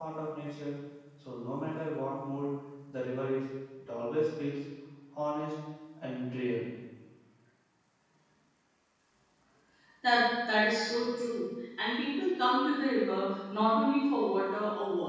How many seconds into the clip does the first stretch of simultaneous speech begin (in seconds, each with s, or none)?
none